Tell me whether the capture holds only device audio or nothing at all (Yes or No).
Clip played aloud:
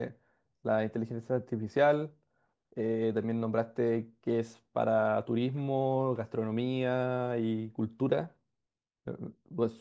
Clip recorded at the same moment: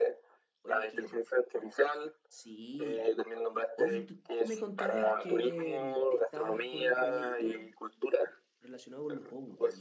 No